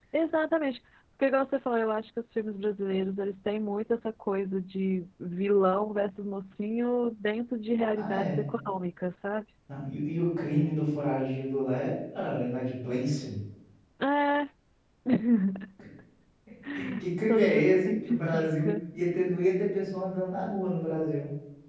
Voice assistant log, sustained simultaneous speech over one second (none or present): present